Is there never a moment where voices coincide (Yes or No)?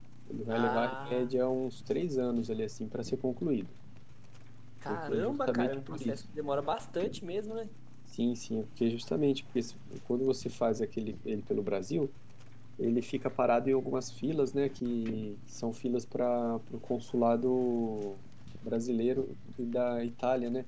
No